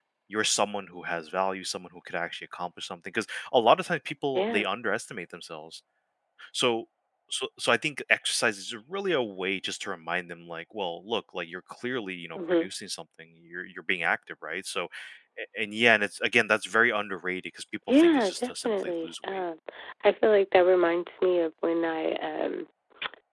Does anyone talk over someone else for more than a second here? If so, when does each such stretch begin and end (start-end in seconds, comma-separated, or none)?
17.9-19.4